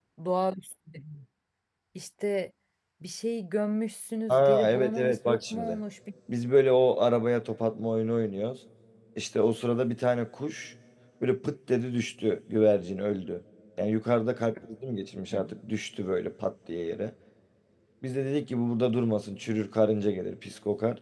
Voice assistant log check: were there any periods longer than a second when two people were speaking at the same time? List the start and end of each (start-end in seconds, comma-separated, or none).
4.3-5.8